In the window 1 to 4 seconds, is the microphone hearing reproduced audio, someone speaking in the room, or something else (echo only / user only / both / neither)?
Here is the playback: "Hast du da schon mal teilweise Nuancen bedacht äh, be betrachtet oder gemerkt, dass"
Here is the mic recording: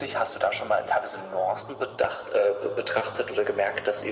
echo only